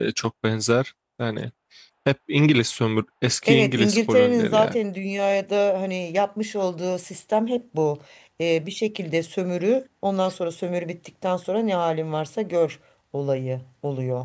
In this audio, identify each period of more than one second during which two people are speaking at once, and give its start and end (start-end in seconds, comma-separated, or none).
3.5-4.8